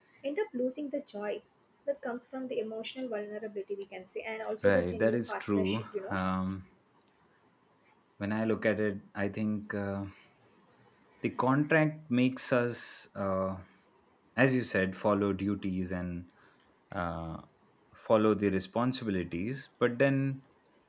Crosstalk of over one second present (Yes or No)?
Yes